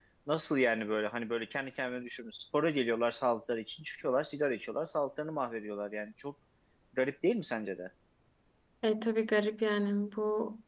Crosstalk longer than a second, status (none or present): none